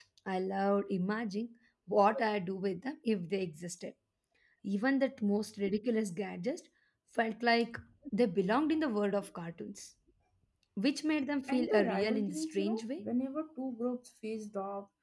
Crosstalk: present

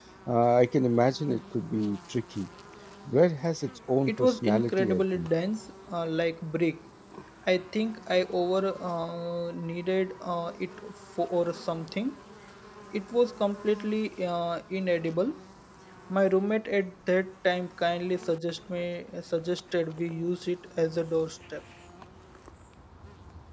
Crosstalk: present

